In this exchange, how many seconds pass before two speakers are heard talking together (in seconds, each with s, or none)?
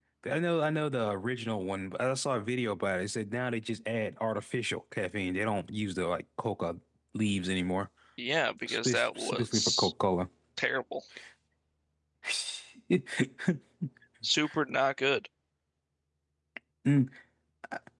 8.7 s